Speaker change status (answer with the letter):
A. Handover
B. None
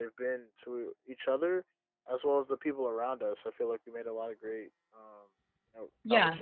A